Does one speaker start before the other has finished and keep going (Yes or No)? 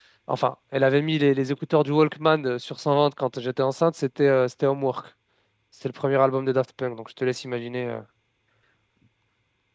No